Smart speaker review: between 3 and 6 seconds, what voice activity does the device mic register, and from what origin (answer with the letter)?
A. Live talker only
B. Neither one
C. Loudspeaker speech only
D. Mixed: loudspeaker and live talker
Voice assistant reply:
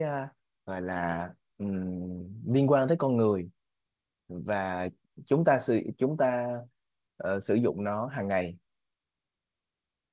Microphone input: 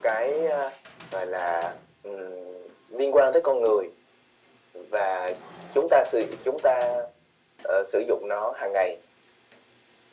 C